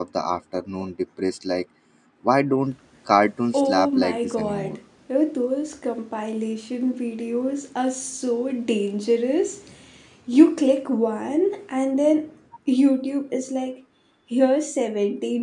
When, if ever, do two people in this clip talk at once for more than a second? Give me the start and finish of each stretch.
3.5-4.8

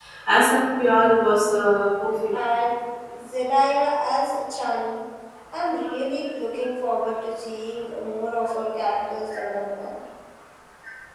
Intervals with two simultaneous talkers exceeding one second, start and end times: none

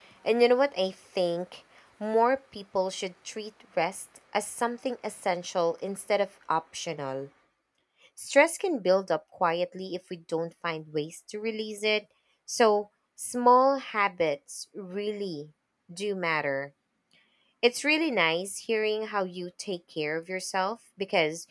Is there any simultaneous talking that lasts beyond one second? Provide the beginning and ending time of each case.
none

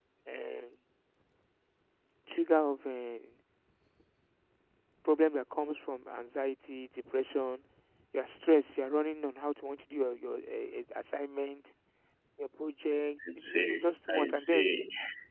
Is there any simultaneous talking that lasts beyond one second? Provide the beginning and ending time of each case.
13.3-14.7

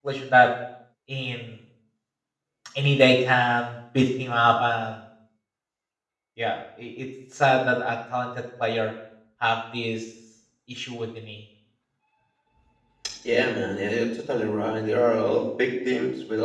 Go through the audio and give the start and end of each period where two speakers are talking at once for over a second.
none

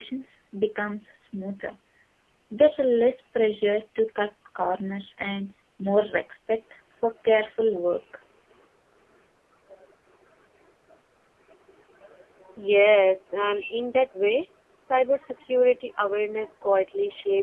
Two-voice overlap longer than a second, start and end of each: none

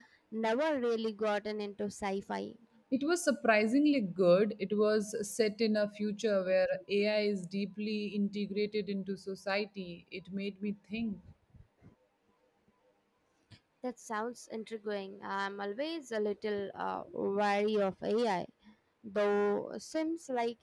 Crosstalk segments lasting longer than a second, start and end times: none

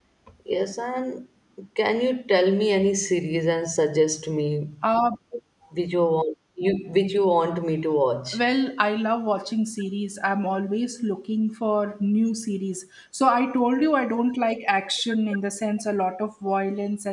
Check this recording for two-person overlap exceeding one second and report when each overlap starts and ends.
none

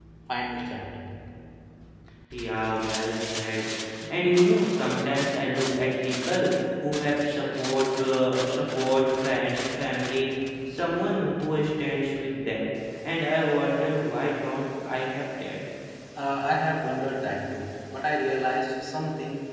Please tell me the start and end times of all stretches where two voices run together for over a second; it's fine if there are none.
none

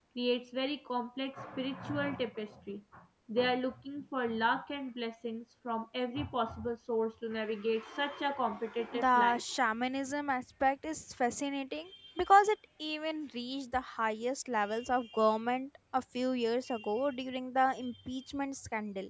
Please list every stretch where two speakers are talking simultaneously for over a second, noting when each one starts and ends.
none

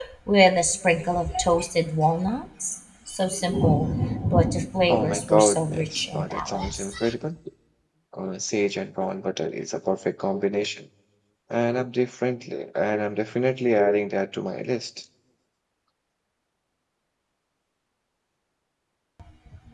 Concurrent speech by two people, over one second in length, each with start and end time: 4.9-6.9

